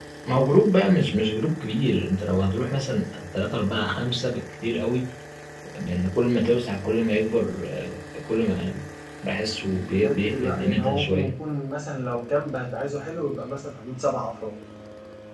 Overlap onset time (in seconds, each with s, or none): 9.7 s